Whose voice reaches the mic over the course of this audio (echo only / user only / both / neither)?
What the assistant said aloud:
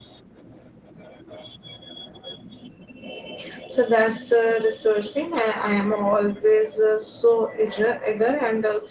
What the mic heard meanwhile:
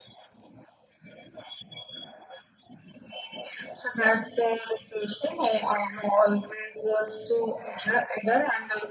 echo only